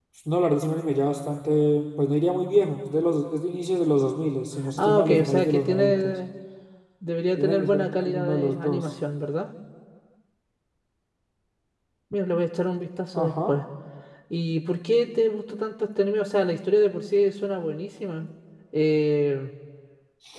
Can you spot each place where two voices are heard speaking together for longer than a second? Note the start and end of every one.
4.8-6.1, 7.3-8.9

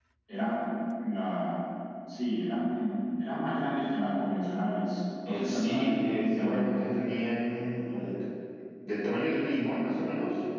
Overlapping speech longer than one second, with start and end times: 5.3-6.8

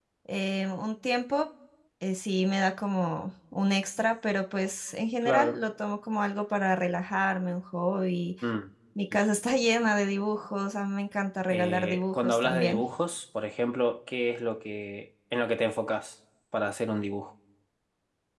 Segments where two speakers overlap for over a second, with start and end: 11.5-12.8

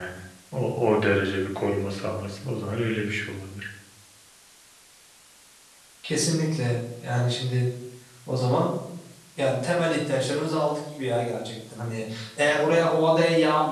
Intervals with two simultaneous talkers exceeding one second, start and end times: none

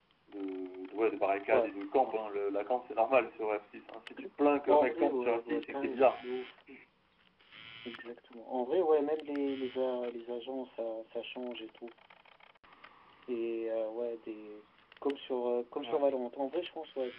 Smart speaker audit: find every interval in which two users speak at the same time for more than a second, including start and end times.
4.7-6.2

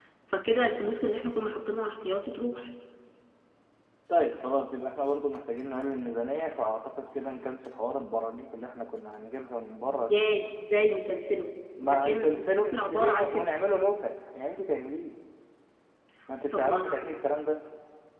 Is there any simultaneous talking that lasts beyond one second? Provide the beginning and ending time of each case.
11.8-13.5

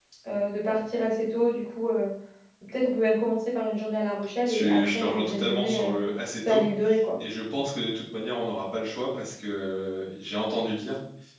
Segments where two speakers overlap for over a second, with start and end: 4.5-6.0

